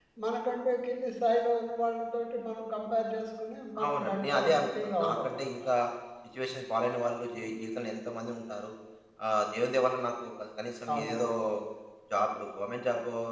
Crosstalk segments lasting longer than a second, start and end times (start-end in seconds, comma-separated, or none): 3.9-5.7